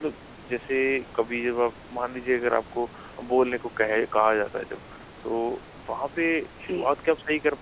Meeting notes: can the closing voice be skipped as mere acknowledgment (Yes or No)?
Yes